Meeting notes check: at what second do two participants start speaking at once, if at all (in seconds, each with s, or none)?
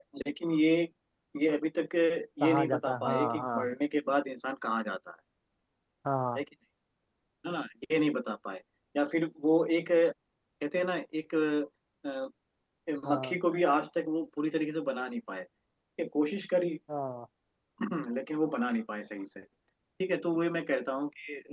2.4 s